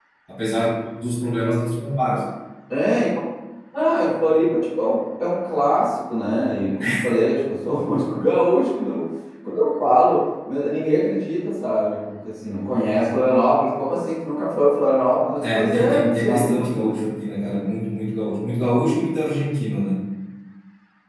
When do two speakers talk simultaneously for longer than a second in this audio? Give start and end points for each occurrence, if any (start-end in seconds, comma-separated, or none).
15.4-17.0